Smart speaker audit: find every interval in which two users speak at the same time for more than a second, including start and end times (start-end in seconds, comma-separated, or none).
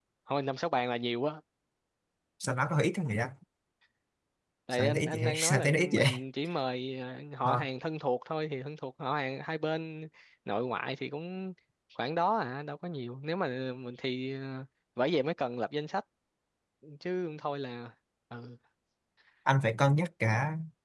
4.7-6.0